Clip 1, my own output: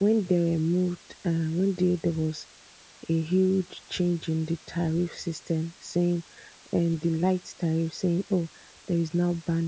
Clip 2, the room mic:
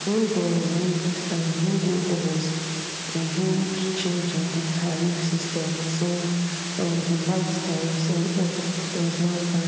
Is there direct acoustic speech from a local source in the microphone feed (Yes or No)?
No